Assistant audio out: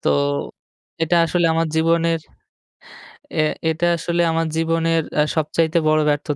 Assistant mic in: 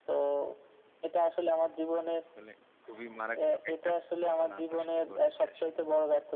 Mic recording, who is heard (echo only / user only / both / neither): both